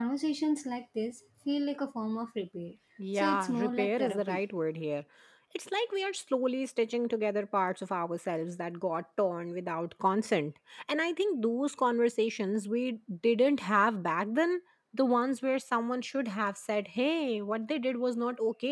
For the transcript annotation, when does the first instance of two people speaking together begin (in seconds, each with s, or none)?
3.2 s